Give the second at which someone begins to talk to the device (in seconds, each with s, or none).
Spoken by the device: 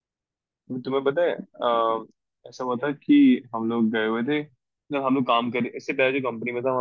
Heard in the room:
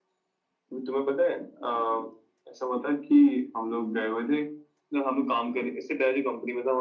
none